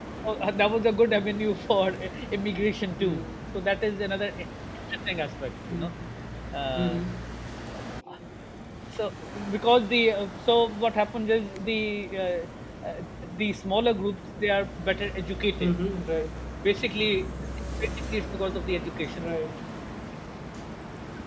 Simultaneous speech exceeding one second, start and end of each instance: none

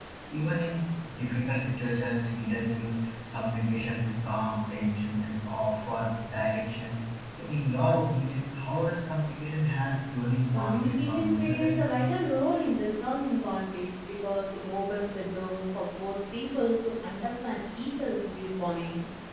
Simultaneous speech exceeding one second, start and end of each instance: 10.6-12.1

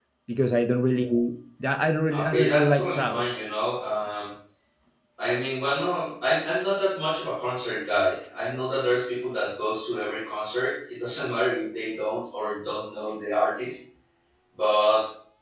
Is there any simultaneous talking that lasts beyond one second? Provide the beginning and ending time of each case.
2.2-3.4

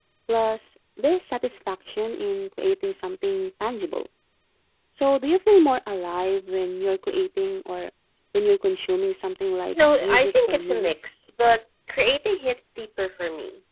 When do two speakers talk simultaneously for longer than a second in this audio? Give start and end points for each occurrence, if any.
9.7-11.1

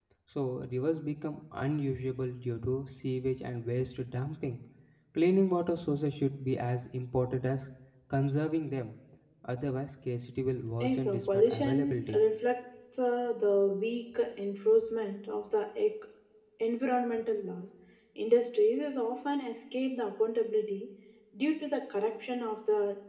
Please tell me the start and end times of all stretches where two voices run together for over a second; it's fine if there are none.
10.8-12.2

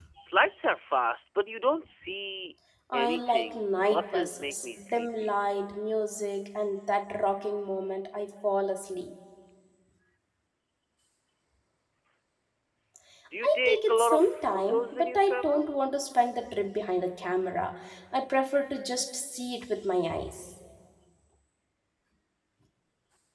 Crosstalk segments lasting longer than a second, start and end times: 2.9-5.4, 13.4-15.6

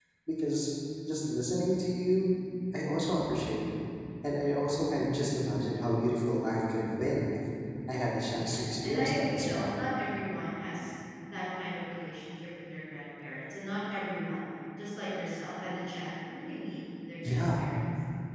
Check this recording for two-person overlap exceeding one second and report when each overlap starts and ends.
8.3-9.8

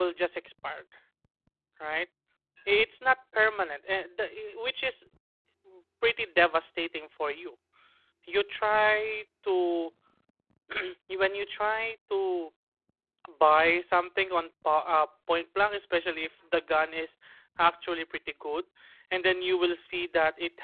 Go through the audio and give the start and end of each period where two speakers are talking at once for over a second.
none

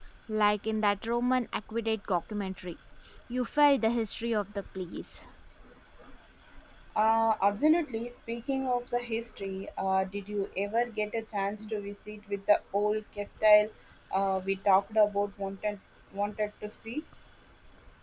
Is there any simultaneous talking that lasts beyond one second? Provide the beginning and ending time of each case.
none

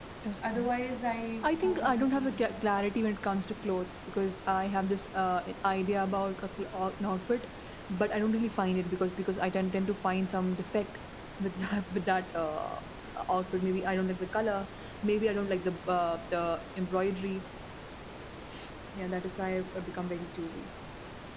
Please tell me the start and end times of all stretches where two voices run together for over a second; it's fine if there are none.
1.4-2.6

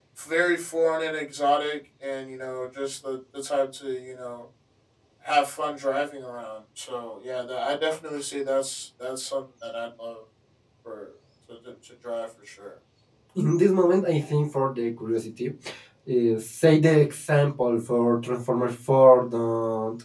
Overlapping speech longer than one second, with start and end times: none

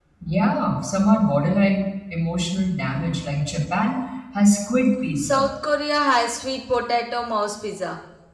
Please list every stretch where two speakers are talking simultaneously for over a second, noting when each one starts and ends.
none

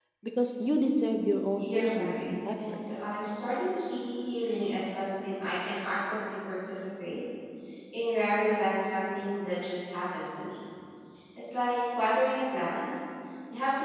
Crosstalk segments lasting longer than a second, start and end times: 1.6-2.8

